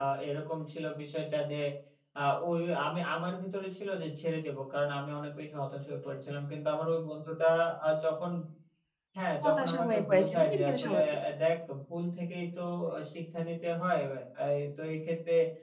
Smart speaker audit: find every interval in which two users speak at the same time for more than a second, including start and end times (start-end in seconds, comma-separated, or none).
9.4-11.0